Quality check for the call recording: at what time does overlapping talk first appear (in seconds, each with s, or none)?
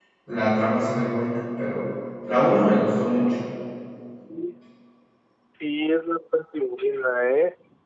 none